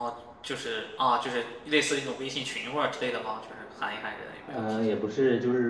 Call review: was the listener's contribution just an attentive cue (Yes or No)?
No